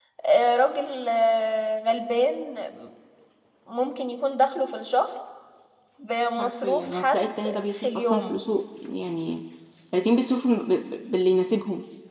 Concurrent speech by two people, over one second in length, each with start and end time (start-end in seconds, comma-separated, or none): 6.4-8.4